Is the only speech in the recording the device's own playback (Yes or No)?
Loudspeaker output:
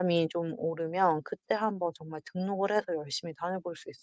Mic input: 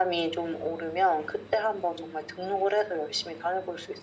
Yes